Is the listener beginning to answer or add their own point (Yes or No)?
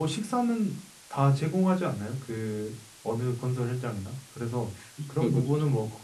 No